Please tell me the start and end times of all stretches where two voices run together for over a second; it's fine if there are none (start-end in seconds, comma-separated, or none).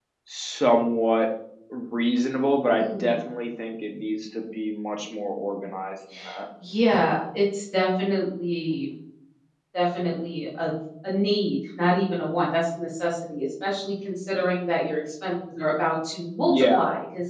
none